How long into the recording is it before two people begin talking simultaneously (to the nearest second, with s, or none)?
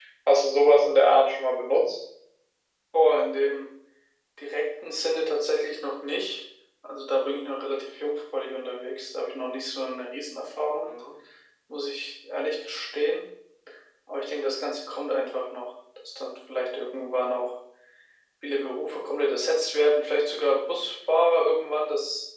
none